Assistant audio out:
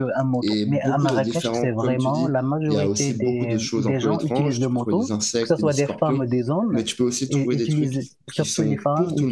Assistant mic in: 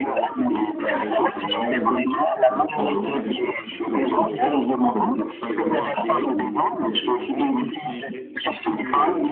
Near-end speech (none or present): present